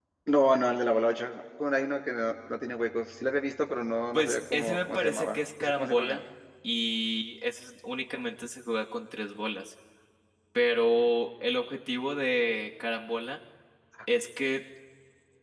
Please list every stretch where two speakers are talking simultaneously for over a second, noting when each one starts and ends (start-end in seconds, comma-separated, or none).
4.1-6.2